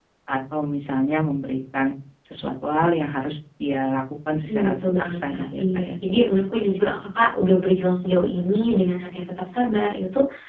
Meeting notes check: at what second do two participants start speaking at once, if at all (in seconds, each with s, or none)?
4.5 s